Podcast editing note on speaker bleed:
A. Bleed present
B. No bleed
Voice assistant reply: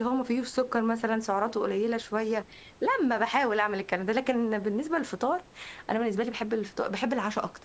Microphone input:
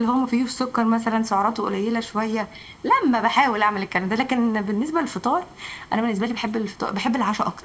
A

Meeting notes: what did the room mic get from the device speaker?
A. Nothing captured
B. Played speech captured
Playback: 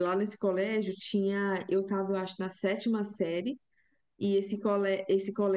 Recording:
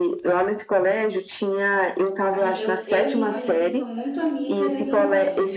B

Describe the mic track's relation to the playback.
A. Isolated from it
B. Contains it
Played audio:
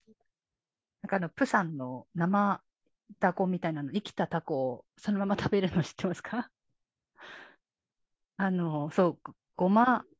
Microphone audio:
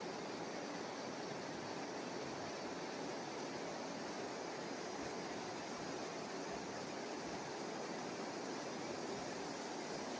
A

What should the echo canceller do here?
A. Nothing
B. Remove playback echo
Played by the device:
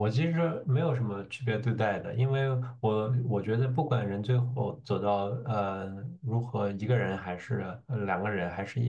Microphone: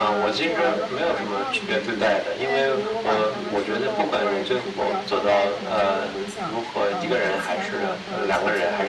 B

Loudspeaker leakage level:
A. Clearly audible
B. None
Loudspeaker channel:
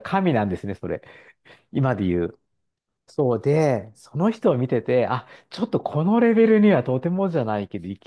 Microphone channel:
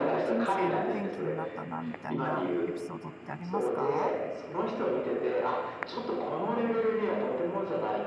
A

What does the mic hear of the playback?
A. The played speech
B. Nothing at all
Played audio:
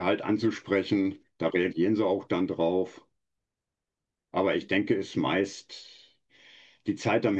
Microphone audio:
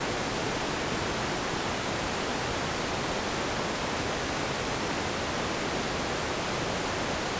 B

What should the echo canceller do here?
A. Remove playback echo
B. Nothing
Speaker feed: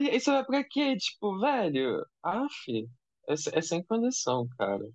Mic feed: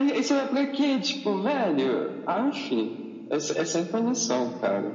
A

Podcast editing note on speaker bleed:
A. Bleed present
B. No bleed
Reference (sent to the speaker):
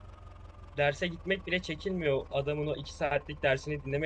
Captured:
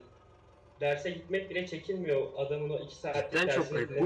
A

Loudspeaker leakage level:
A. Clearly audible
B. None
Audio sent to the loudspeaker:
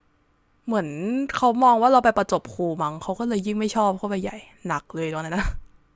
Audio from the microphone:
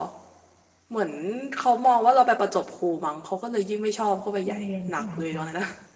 A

